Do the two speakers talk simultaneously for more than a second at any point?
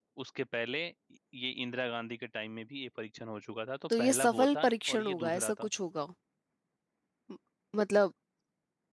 Yes, from 3.9 s

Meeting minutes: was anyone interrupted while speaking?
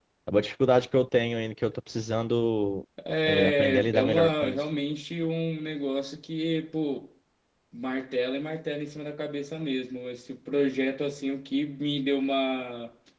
Yes, from 3.2 s

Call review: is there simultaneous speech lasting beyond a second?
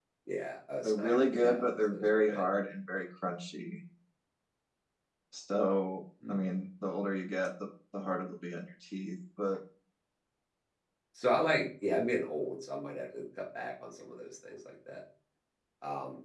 Yes, from 0.8 s

